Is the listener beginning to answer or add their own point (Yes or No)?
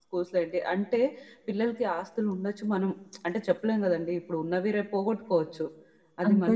No